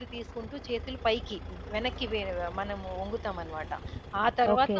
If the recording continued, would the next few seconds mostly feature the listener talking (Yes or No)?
No